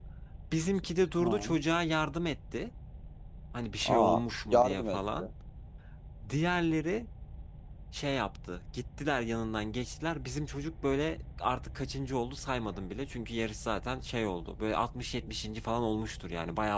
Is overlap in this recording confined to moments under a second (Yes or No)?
No